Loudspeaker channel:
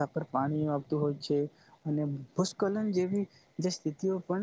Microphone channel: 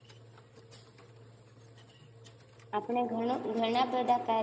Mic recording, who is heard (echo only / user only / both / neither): user only